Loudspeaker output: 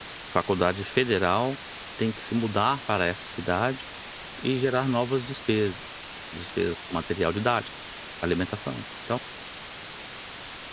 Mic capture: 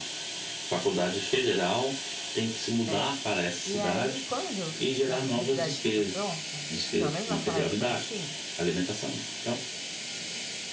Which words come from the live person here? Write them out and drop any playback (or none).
é. E aí quando uma publicidade fica pronta, pelo menos naquela época era assim,